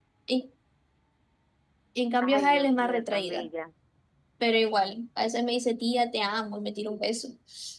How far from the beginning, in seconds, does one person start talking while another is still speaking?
2.2 s

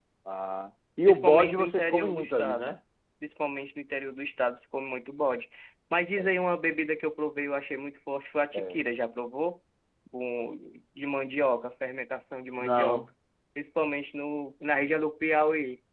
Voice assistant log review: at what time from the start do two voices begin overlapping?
1.1 s

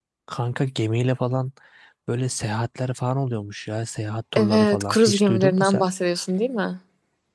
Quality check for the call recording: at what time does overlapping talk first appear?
4.3 s

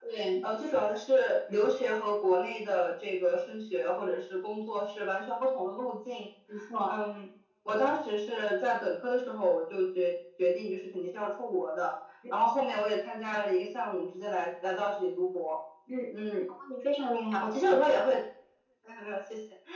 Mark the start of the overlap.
none

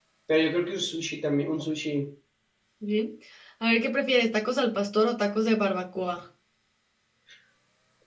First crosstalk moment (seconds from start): none

